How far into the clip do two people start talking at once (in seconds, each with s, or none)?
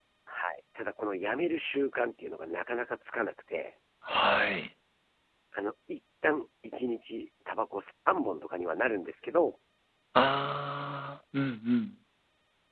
none